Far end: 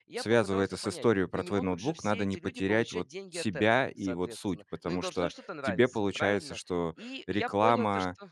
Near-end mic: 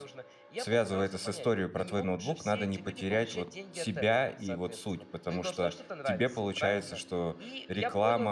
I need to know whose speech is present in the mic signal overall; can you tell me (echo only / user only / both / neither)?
echo only